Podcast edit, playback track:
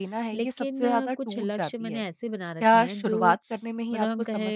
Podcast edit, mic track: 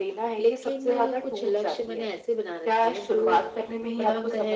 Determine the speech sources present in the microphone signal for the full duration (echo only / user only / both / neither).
echo only